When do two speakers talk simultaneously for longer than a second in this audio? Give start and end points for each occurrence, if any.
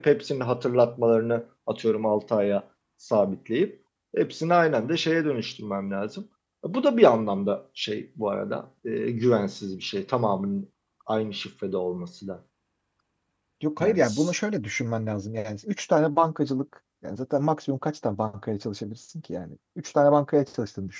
none

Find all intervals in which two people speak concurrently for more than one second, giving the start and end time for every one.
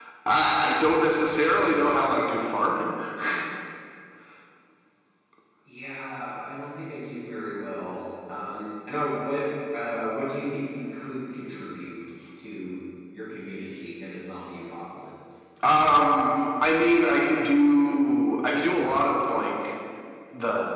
none

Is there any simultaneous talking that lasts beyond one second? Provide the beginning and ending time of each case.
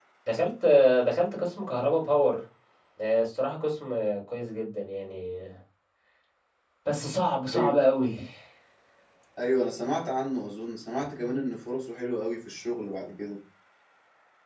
none

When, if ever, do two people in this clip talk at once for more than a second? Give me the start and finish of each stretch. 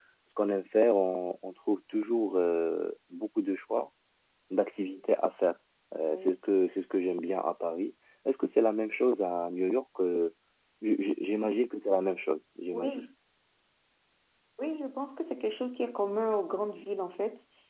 none

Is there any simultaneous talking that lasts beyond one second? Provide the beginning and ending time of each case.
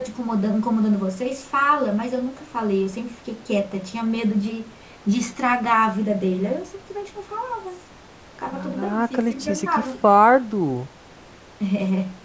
8.5-9.9

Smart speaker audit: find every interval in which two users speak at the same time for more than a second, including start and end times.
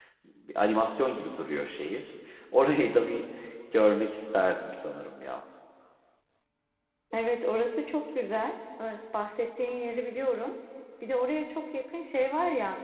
none

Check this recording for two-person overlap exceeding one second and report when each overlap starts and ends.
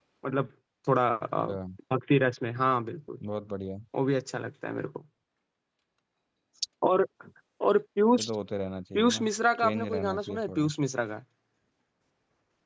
8.9-10.7

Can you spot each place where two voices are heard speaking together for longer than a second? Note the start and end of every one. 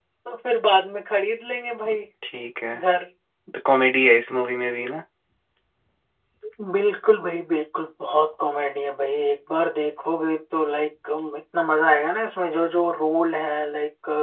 none

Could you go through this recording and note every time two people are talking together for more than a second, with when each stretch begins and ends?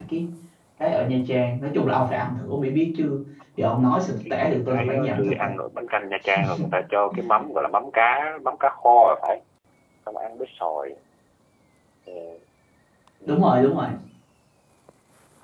4.3-5.5

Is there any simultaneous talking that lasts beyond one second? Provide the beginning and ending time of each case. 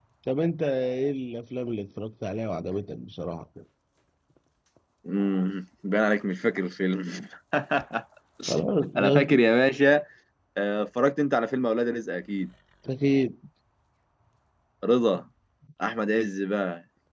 none

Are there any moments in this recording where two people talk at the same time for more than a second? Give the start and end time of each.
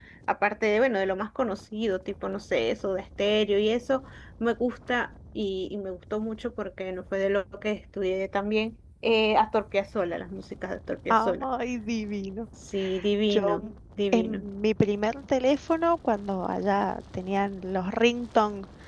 none

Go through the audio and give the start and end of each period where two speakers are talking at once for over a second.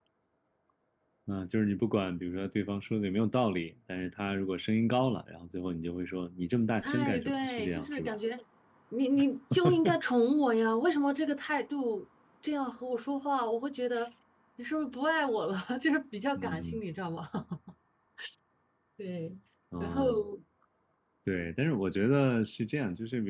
6.8-8.2

